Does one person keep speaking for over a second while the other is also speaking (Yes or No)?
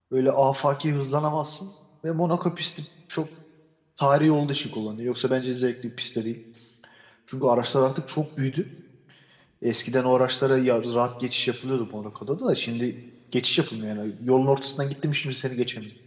No